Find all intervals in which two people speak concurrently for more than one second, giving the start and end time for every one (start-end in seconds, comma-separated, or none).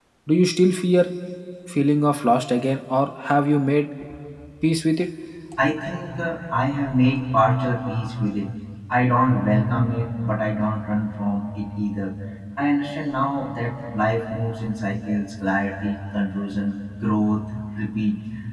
none